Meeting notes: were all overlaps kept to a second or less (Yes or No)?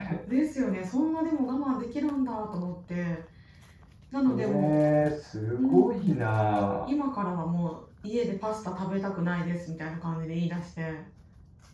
Yes